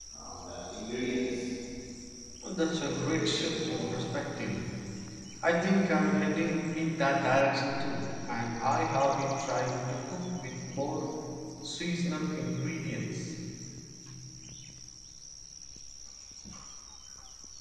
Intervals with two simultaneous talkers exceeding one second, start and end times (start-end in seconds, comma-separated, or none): 2.6-3.9